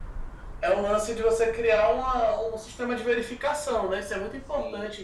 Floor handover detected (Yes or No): No